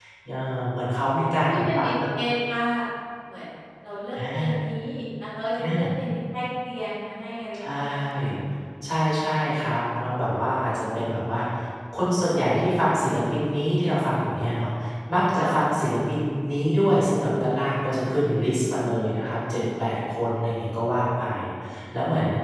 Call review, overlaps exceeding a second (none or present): present